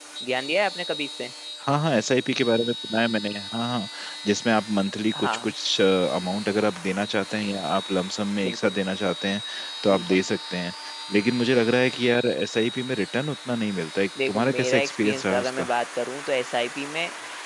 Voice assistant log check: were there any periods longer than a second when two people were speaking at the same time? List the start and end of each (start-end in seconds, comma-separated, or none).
14.3-15.7